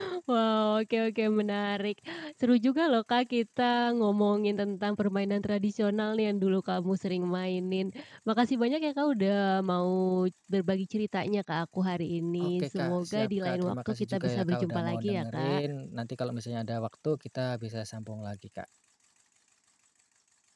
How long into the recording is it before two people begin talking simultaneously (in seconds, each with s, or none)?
12.4 s